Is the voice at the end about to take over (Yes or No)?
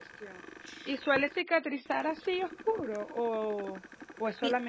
No